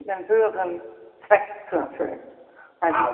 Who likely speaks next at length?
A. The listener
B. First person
B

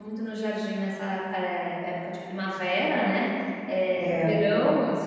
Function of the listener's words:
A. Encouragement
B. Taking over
A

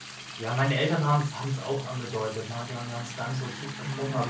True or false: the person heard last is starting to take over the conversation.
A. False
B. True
A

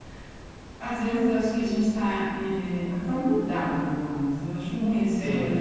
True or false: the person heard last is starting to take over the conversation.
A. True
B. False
B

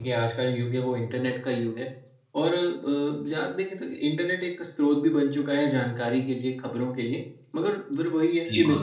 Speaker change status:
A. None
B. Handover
A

